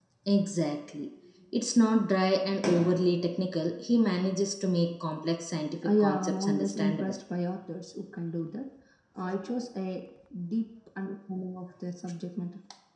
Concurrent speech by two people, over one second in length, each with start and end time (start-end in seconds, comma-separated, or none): 5.8-7.1